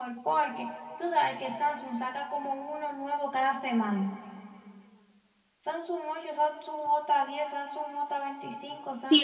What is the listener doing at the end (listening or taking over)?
taking over